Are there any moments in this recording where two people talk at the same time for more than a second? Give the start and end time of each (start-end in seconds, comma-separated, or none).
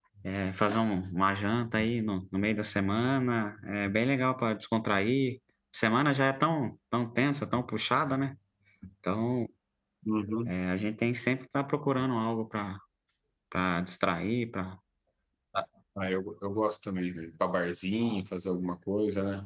none